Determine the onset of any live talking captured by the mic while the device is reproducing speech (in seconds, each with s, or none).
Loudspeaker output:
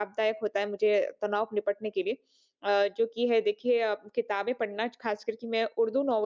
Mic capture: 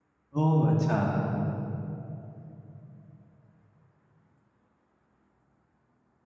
0.4 s